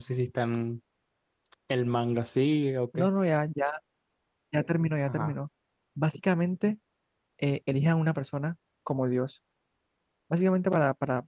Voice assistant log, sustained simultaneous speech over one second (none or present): none